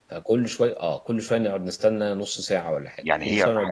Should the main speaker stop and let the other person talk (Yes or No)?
Yes